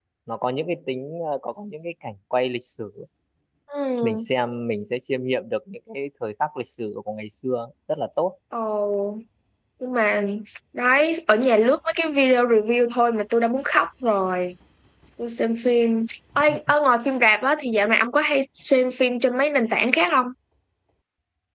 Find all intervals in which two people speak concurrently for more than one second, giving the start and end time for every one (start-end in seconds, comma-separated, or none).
none